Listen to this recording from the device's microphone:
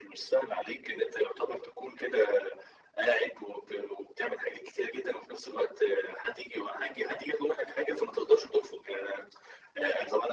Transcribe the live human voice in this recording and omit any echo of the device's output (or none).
none